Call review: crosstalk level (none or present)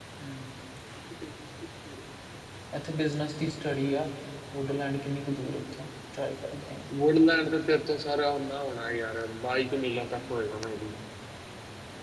none